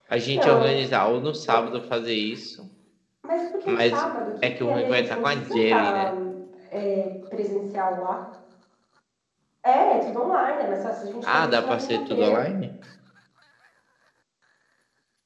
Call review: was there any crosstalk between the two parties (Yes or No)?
Yes